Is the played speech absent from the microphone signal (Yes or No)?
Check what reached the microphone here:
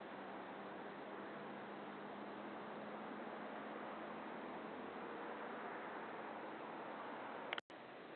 Yes